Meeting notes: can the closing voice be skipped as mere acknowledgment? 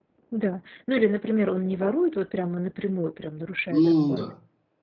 Yes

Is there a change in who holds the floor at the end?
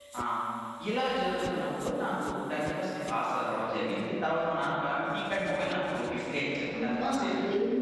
Yes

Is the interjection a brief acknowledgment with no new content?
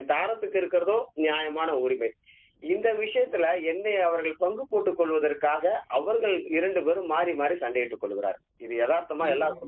No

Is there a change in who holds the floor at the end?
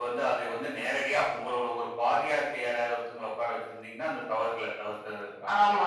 Yes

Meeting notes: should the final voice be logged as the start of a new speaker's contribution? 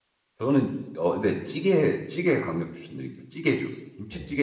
Yes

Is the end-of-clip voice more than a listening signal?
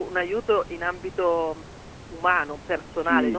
Yes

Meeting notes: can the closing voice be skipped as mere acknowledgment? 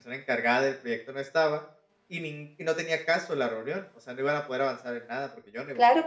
No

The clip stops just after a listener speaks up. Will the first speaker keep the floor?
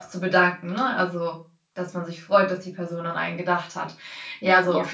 Yes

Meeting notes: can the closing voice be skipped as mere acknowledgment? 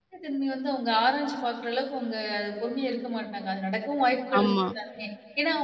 Yes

